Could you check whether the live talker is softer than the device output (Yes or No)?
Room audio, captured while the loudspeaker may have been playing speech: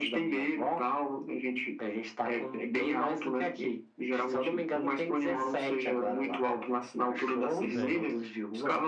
Yes